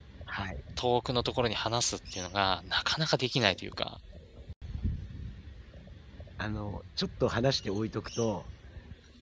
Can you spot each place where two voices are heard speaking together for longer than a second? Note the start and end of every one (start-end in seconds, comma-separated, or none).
none